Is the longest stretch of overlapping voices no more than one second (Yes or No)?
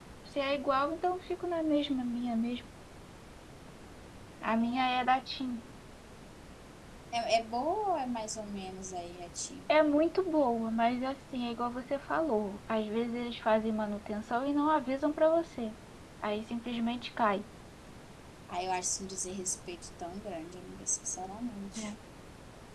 Yes